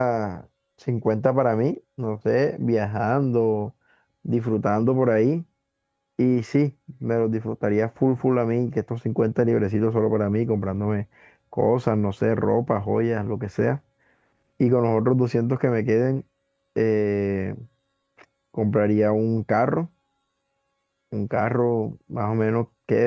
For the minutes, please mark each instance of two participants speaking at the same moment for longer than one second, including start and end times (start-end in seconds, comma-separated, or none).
none